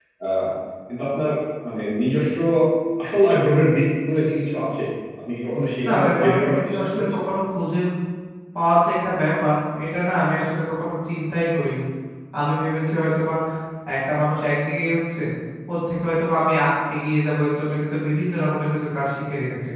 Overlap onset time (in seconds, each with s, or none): 5.8 s